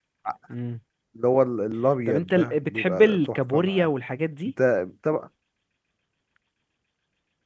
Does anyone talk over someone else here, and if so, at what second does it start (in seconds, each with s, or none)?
2.1 s